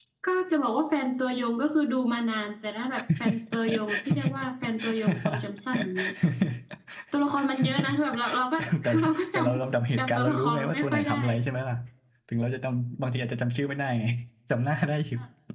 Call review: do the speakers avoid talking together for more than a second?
No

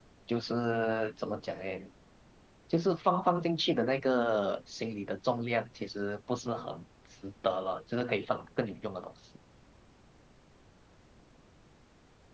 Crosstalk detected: No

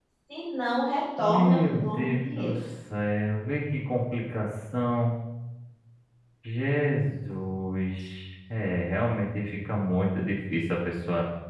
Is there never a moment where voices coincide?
No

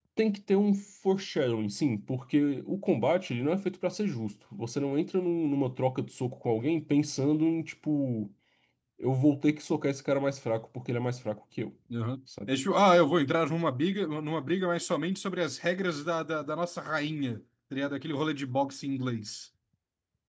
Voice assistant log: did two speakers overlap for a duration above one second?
No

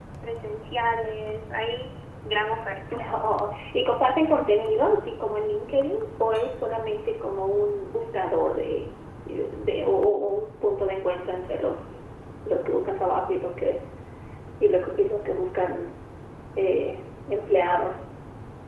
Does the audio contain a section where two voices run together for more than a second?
No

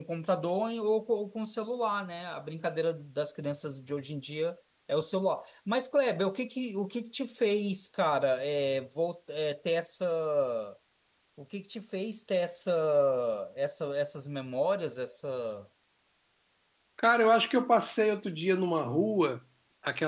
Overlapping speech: No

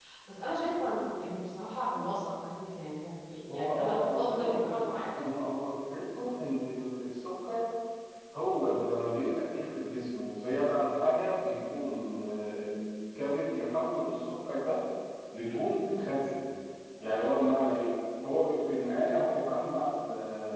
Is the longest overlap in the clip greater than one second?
Yes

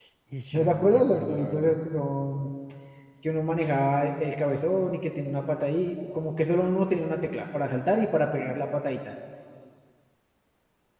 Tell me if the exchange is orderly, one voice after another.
No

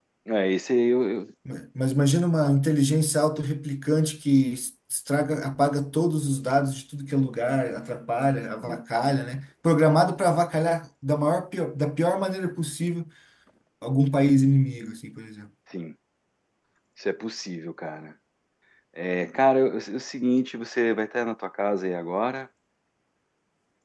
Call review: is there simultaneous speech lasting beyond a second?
No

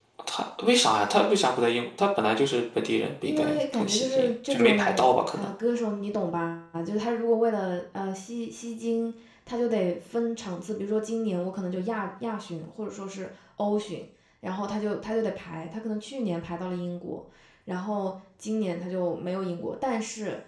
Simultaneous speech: Yes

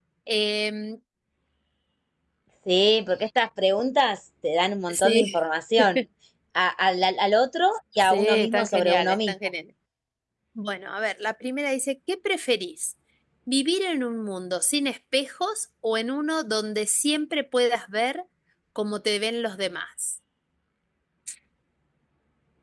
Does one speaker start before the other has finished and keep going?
Yes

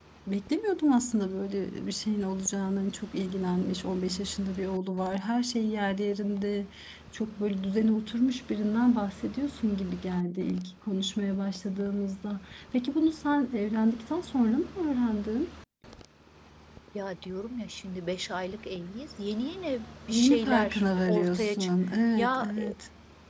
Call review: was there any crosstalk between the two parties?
Yes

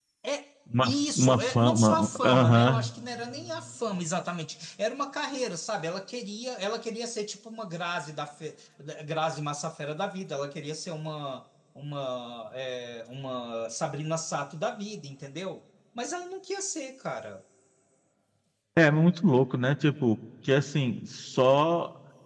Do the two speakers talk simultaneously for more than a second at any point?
Yes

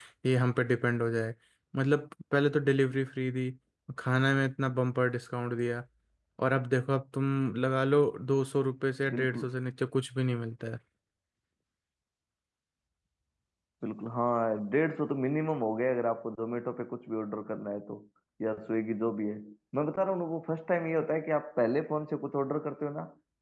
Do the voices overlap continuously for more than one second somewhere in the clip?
No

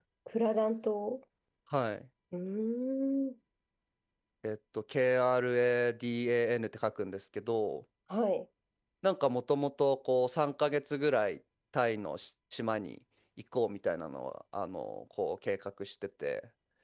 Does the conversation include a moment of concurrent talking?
No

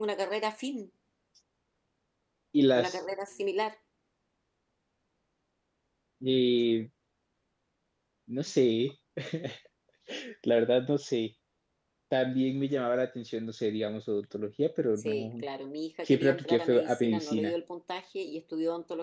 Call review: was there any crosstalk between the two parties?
Yes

